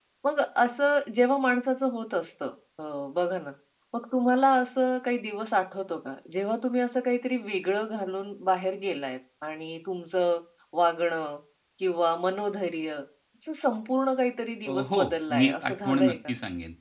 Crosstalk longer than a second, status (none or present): present